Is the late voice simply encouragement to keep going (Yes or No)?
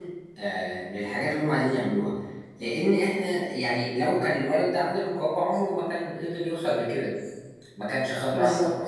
No